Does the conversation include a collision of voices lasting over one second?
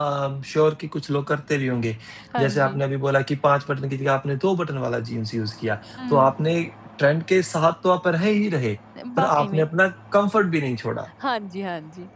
No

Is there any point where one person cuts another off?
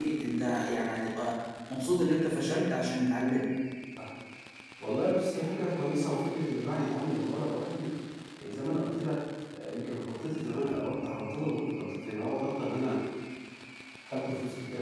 No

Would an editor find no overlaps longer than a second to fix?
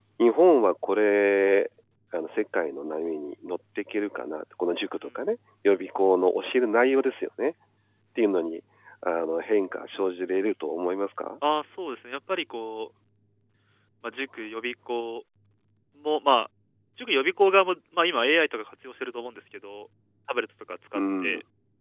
Yes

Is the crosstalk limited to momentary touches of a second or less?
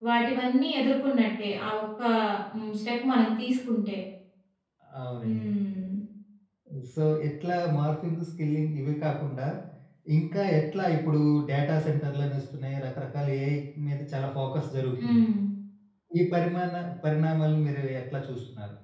Yes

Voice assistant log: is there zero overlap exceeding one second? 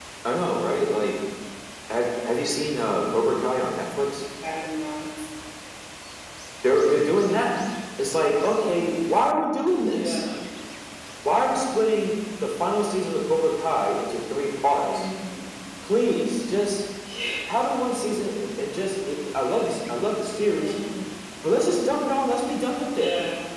Yes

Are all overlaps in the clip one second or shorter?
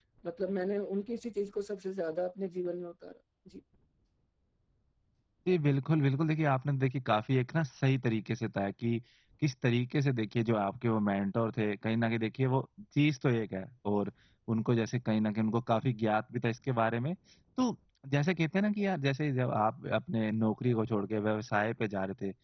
Yes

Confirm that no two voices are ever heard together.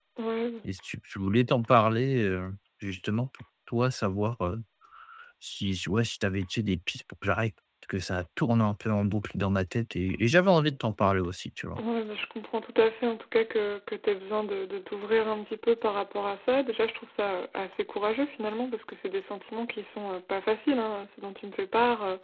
Yes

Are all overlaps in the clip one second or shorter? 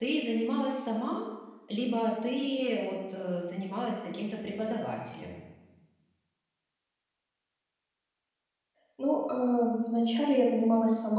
Yes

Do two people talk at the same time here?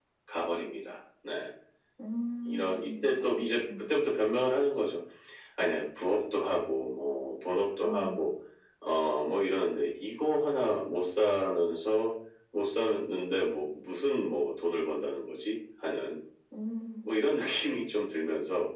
Yes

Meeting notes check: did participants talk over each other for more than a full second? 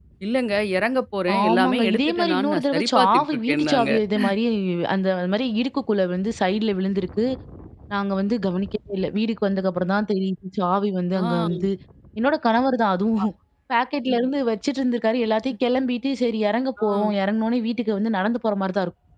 Yes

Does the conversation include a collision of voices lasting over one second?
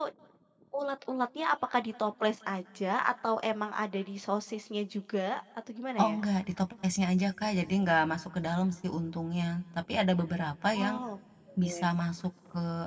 No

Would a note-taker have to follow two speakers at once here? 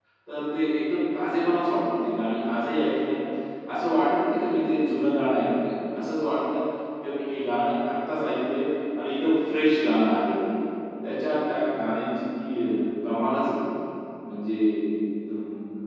No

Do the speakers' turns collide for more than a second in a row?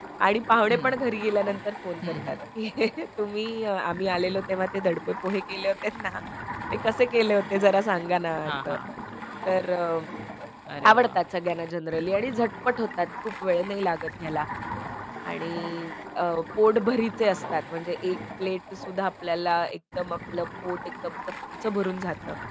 No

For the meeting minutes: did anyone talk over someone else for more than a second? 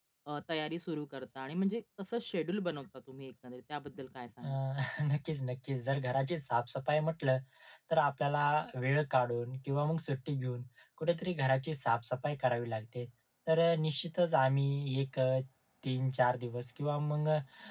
No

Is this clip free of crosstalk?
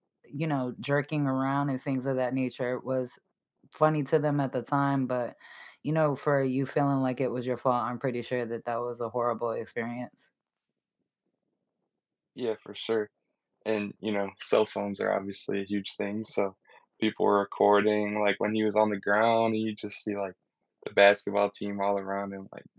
Yes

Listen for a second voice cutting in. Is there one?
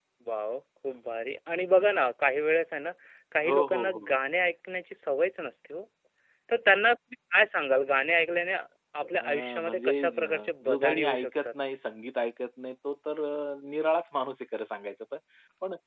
Yes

